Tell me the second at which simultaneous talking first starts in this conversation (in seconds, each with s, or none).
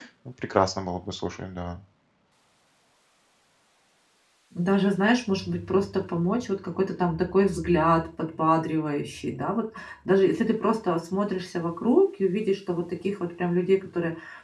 none